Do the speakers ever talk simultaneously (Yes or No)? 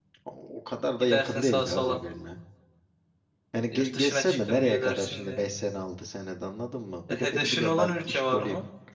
Yes